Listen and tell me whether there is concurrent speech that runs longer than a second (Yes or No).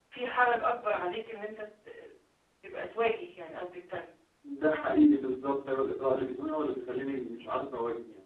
No